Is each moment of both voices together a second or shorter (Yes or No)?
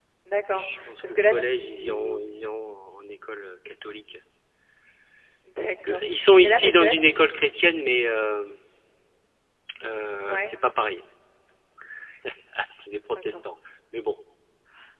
No